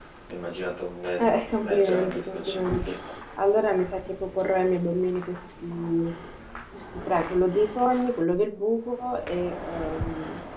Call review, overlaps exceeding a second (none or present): present